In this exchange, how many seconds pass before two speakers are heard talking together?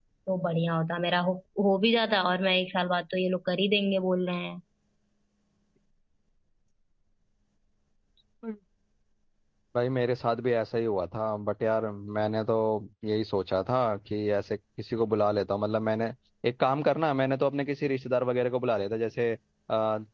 none

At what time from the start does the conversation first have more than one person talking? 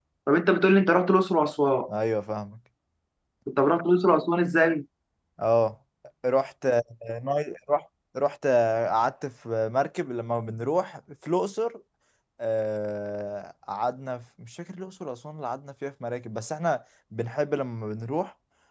none

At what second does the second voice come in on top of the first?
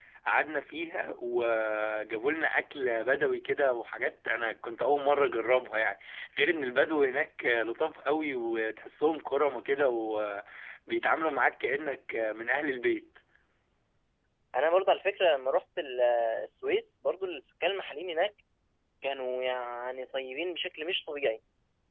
none

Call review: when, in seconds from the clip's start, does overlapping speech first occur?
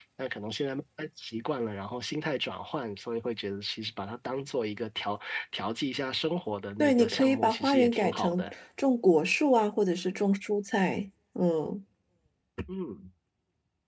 6.8 s

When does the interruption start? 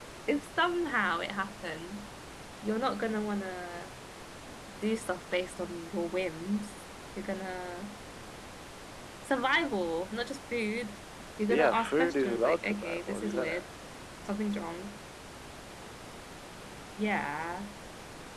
11.4 s

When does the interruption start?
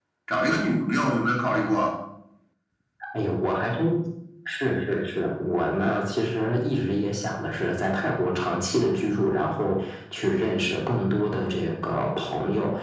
none

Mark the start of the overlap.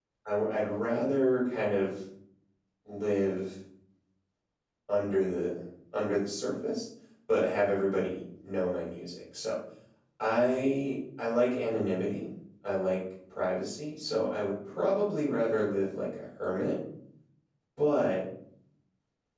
none

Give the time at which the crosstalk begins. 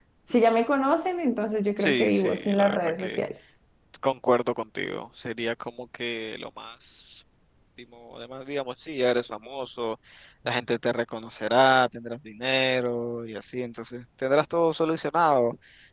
1.8 s

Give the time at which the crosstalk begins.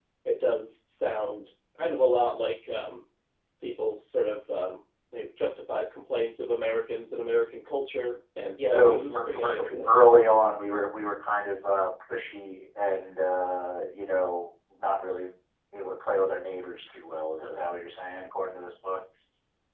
8.7 s

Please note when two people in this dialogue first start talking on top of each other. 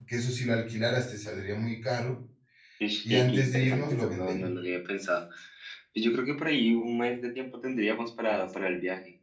3.1 s

